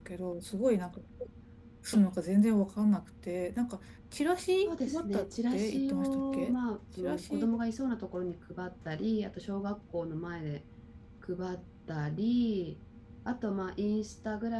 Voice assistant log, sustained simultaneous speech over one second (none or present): present